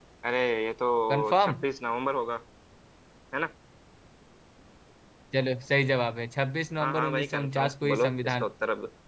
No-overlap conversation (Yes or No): No